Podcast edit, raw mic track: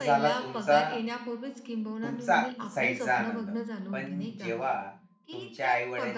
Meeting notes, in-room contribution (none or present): present